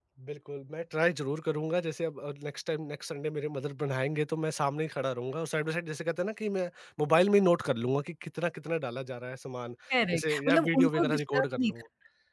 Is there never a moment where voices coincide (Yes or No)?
No